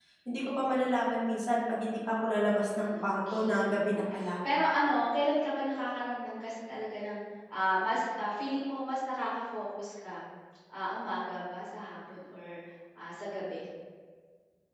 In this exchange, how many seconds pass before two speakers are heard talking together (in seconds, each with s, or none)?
2.6 s